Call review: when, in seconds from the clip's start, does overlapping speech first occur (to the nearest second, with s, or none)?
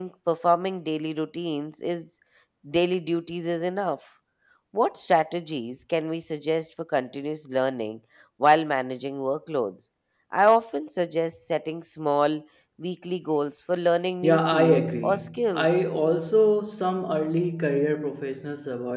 14 s